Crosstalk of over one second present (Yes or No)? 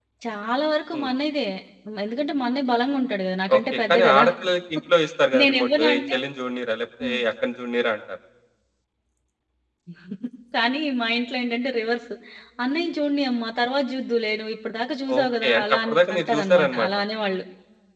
Yes